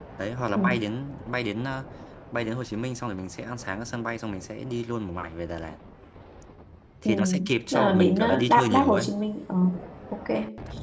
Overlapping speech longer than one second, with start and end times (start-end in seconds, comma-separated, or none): 7.7-9.1